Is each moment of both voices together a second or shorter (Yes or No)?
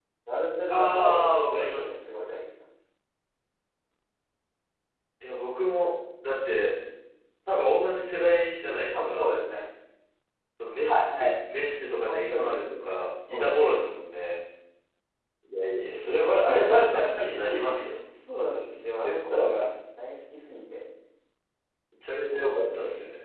No